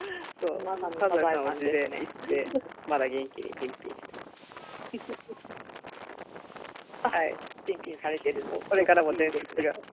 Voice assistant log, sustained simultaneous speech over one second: present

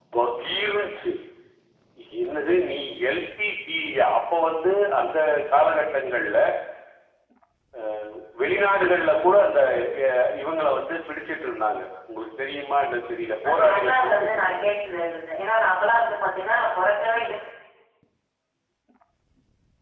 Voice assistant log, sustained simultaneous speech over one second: present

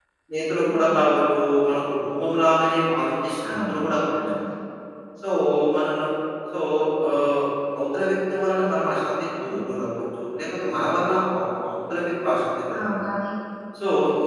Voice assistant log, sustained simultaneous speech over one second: none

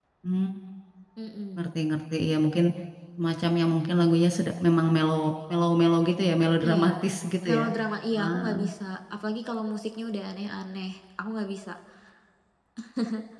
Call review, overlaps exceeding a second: none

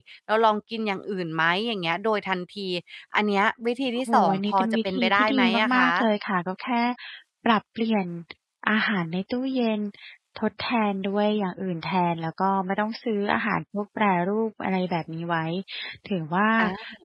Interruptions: present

